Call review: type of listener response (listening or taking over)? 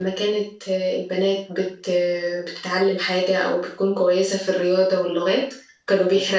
listening